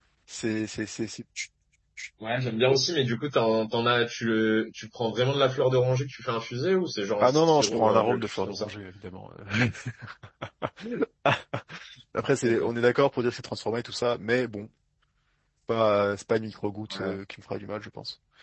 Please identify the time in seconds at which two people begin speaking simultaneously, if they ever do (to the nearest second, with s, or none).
7 s